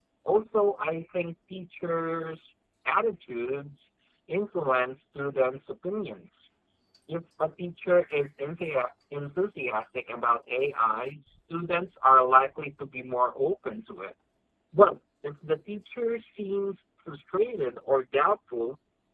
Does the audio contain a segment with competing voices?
No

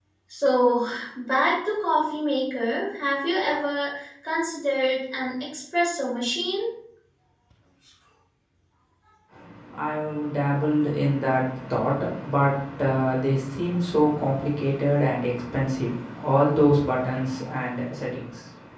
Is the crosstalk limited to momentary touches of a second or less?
Yes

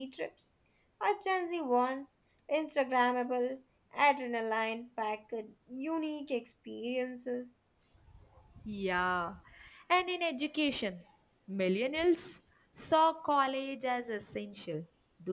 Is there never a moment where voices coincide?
Yes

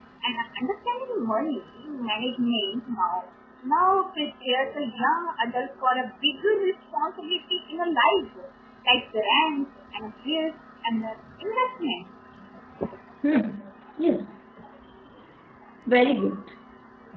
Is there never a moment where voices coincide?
Yes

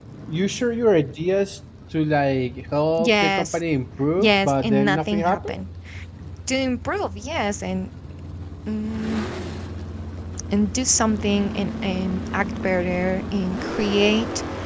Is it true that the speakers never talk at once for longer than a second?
No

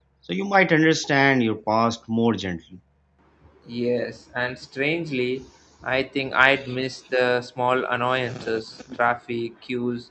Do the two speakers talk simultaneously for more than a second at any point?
No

